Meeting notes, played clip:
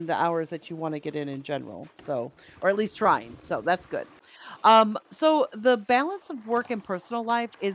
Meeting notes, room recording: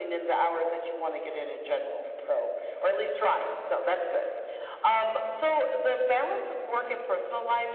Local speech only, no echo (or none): none